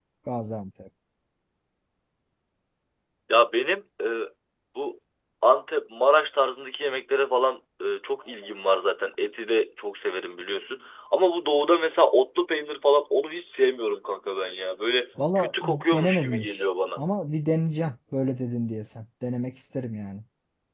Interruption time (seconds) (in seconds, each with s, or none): 15.2 s